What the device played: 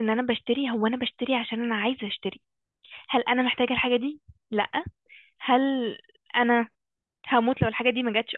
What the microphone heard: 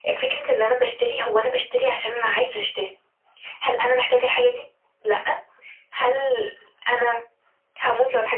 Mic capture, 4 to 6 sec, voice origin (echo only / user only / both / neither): echo only